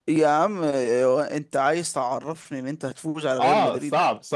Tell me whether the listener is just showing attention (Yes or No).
No